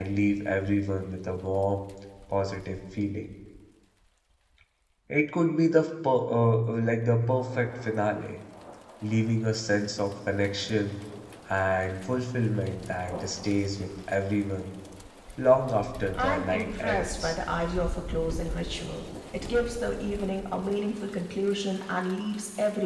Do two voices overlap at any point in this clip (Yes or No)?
Yes